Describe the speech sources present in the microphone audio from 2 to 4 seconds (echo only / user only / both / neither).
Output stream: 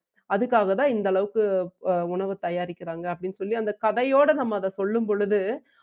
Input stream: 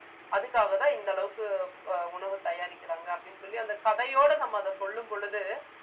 echo only